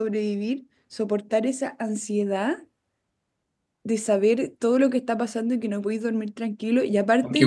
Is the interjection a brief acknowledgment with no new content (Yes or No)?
Yes